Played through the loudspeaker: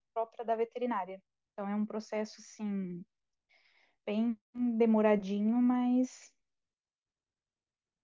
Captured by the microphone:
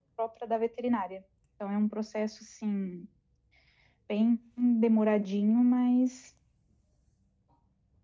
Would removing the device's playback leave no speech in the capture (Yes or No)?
Yes